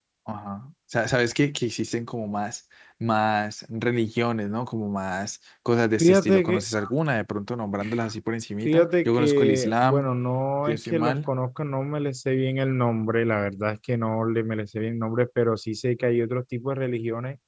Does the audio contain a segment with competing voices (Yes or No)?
Yes